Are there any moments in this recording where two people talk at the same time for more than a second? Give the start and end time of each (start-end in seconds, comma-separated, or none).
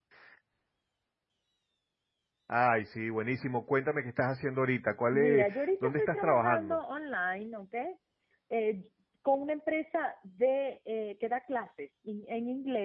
5.1-6.8